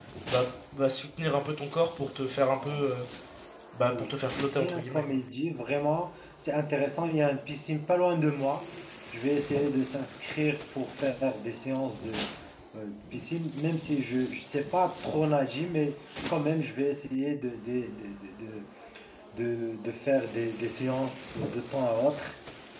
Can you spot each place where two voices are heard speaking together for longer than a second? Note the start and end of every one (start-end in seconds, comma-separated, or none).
3.8-5.2